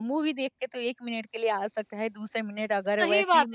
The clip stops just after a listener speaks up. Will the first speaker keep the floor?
No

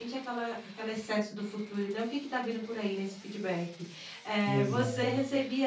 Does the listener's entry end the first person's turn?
No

